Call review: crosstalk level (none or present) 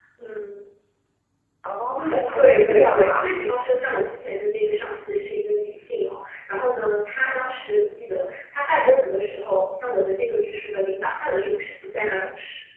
present